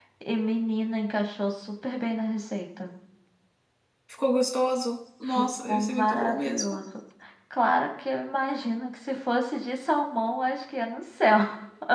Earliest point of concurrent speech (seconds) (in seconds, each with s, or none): 5.3 s